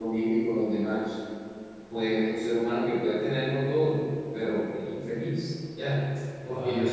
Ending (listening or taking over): listening